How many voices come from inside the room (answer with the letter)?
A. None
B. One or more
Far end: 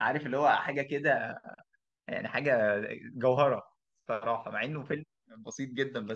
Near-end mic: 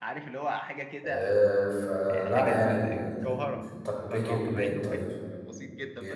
B